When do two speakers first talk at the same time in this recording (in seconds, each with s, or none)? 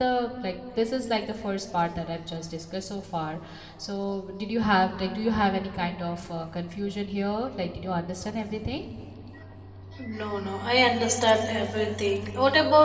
none